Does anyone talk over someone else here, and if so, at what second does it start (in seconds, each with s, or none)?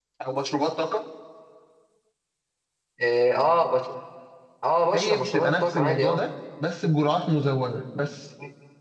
4.9 s